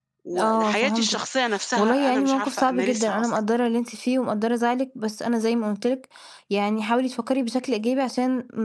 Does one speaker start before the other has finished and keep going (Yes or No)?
Yes